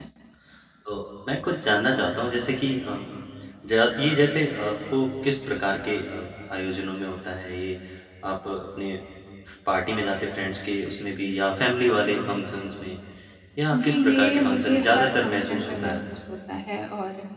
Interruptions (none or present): present